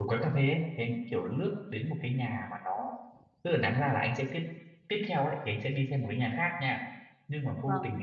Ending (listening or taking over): listening